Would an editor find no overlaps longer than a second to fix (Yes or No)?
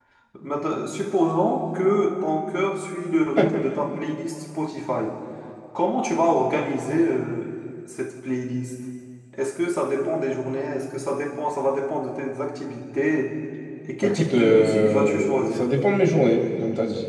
No